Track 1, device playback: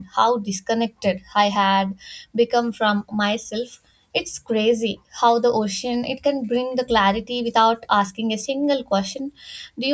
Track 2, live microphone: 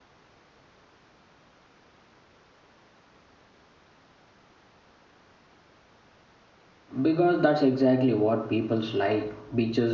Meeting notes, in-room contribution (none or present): present